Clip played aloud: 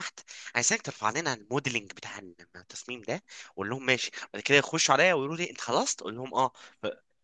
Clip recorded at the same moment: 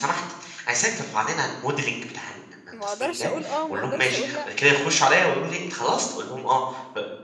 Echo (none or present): present